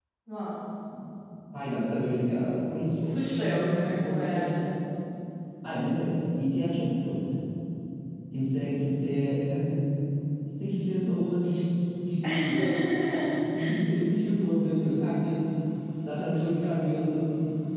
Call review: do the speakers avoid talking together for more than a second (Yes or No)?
No